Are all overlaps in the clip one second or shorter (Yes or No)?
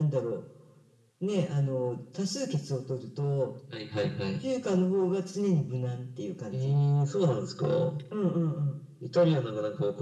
Yes